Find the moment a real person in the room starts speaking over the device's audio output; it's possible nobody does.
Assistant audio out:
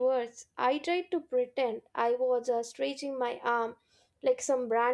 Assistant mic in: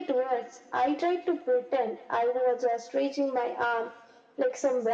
none

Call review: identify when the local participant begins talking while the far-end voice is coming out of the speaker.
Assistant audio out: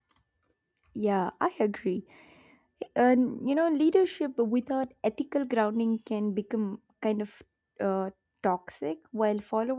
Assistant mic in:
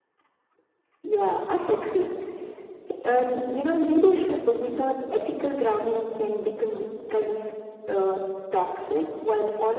none

